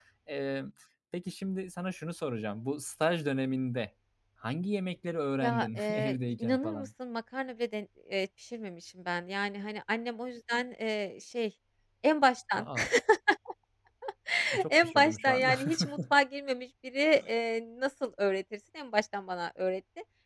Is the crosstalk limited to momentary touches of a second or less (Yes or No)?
No